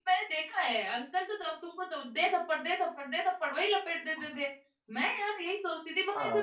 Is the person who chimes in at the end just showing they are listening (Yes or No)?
Yes